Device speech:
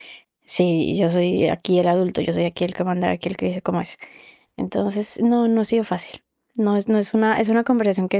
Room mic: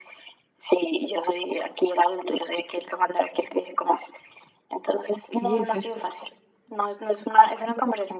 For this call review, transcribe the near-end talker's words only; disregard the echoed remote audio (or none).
Okey, o sea,